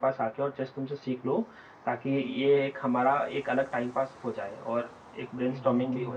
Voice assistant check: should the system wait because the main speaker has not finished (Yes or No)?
No